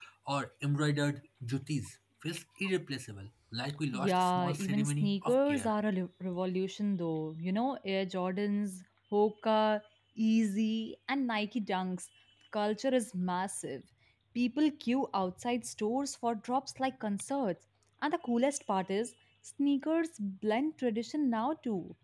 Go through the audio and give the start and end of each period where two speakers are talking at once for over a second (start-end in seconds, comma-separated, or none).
3.9-5.7